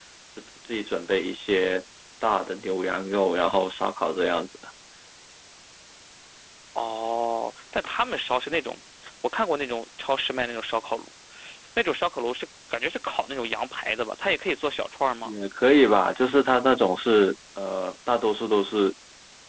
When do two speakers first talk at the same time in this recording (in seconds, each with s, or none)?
none